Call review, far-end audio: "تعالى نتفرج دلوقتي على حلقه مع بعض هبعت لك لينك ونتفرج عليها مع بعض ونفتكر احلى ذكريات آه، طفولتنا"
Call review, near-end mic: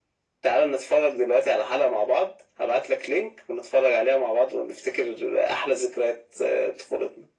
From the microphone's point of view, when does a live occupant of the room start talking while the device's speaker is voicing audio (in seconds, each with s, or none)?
none